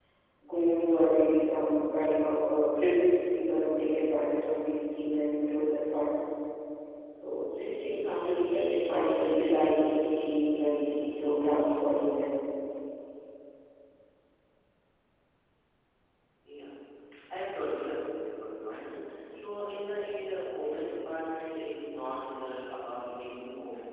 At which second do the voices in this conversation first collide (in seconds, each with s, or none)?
none